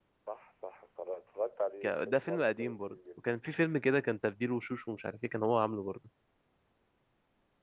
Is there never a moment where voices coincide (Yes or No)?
No